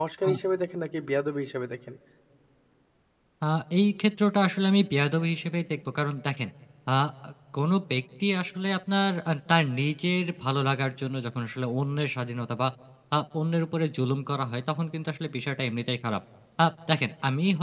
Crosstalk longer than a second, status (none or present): none